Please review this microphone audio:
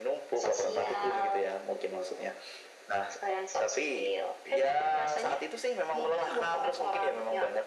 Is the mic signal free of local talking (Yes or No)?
Yes